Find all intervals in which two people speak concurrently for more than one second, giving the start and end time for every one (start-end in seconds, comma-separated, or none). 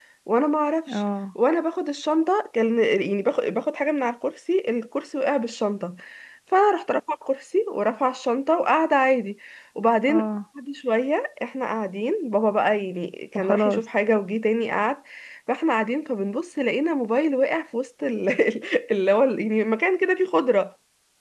none